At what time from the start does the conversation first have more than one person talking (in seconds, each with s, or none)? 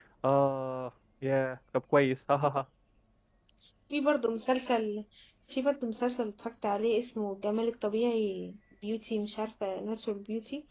none